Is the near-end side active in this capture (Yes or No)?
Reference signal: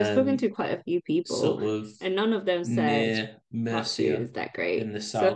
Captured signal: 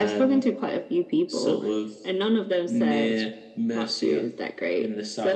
No